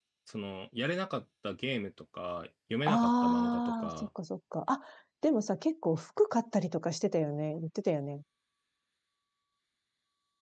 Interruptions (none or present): present